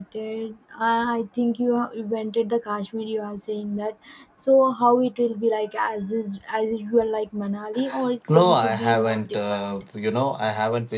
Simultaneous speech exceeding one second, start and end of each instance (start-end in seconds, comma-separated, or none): 8.3-9.8